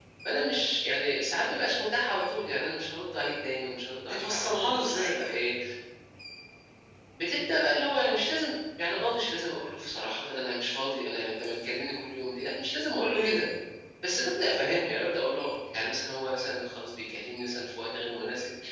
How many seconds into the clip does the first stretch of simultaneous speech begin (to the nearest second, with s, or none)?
4 s